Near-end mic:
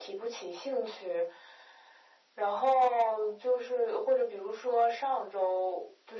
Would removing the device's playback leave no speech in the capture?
Yes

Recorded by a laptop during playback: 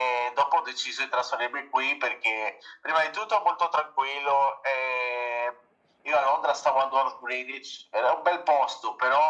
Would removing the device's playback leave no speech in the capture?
Yes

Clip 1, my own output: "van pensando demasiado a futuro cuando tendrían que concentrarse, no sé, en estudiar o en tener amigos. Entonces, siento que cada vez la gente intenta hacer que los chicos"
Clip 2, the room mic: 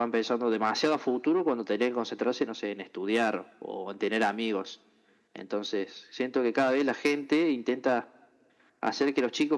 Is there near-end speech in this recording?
No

